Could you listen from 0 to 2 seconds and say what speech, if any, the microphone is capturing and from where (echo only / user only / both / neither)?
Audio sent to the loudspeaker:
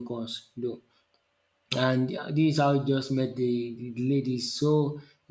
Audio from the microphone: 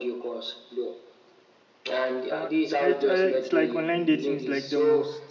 echo only